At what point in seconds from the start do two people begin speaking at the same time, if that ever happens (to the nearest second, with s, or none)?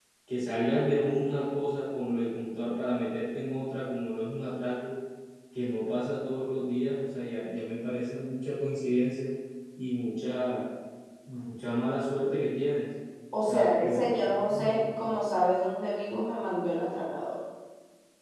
13 s